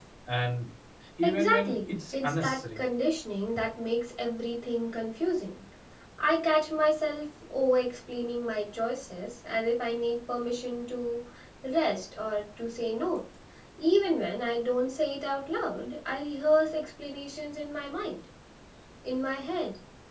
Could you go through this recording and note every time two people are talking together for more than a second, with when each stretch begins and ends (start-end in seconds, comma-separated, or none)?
1.2-2.8